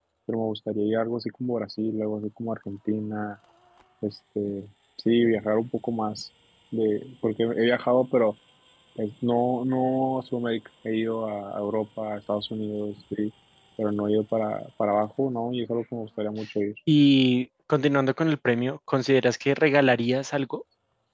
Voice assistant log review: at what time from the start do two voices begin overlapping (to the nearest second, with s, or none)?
none